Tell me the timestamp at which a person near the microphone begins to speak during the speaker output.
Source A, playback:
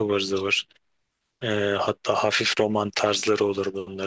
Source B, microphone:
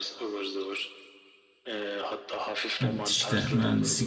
2.8 s

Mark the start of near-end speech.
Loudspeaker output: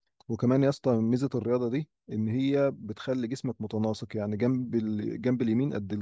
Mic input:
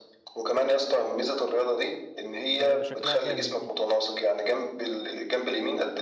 2.6 s

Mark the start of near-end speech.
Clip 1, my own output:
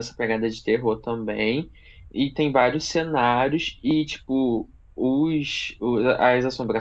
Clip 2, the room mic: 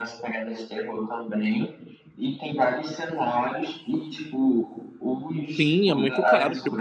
5.6 s

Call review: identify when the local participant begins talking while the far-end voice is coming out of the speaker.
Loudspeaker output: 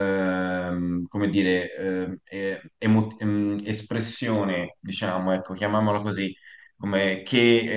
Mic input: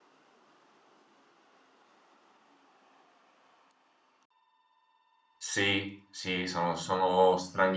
5.4 s

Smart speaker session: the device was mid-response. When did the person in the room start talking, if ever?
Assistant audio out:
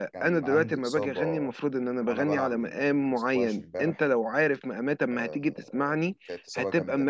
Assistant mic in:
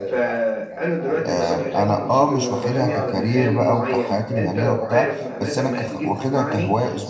1.2 s

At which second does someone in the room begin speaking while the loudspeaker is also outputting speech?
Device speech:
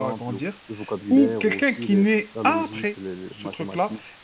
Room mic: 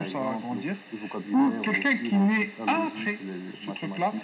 none

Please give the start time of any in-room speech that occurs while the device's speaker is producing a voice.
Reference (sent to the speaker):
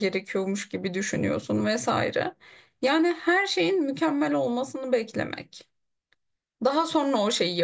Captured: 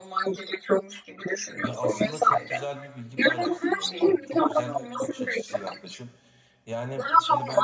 1.6 s

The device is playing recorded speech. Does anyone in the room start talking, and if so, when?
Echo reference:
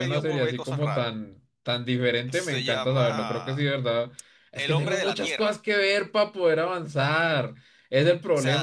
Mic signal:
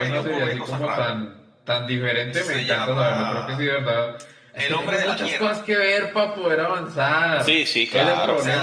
7.4 s

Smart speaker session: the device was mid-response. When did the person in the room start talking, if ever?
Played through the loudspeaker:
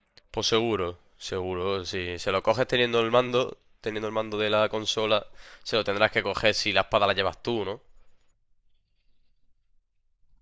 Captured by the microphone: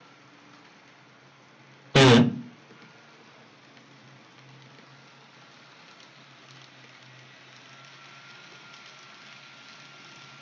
1.9 s

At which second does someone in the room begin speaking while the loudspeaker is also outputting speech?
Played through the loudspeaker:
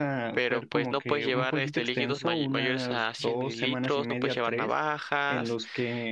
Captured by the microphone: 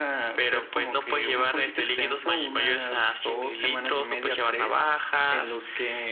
none

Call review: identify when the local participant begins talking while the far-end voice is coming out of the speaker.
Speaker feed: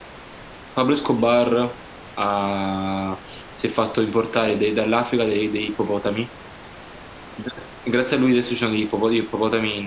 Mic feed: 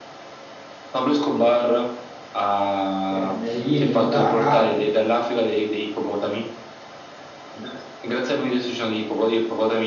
3.1 s

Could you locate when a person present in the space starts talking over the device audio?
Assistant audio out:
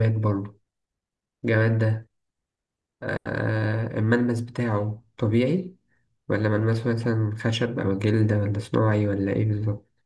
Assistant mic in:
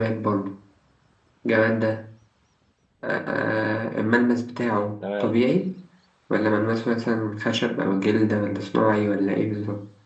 5.0 s

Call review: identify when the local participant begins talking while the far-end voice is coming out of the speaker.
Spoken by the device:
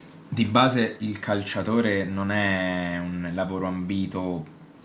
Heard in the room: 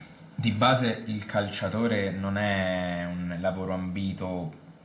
none

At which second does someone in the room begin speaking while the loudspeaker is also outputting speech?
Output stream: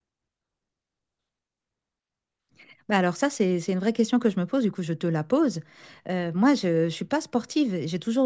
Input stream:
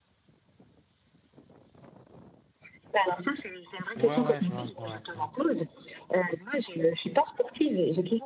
4.0 s

